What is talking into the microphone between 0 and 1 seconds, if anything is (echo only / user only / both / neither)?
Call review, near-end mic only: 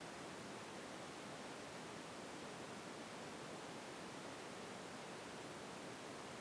neither